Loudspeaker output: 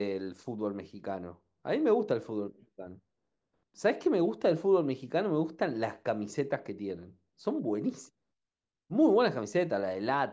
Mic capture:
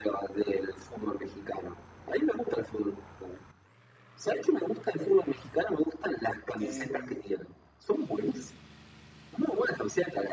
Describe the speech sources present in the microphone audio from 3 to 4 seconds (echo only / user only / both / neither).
echo only